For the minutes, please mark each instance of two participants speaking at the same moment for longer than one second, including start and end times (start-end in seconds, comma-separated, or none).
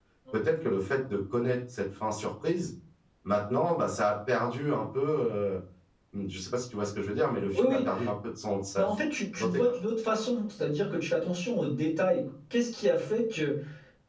none